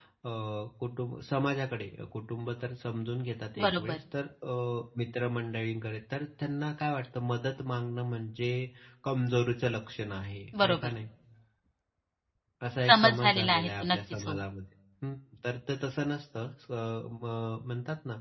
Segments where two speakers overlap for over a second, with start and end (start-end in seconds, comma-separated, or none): 12.8-14.4